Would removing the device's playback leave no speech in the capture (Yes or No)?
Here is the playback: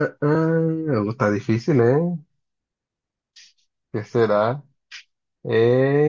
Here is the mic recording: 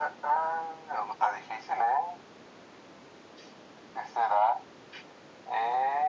Yes